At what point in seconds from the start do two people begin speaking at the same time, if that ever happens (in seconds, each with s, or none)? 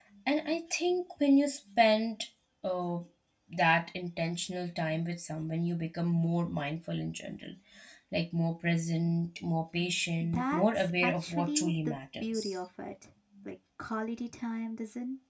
10.2 s